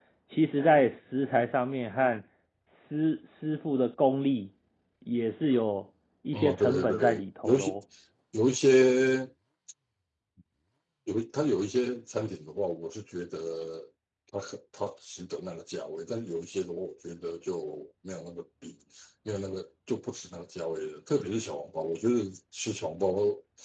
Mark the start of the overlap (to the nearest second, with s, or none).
6 s